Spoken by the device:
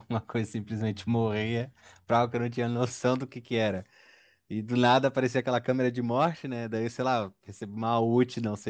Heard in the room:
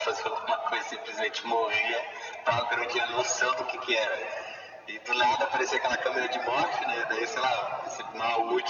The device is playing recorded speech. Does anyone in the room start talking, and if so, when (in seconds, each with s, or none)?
none